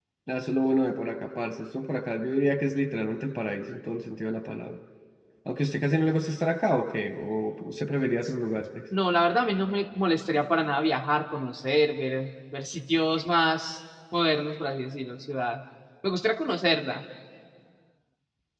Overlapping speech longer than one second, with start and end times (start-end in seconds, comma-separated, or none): none